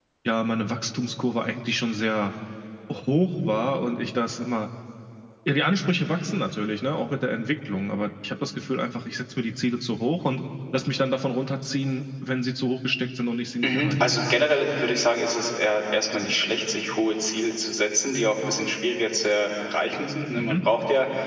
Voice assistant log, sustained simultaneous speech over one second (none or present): none